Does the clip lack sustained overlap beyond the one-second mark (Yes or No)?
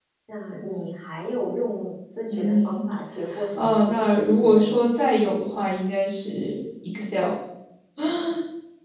No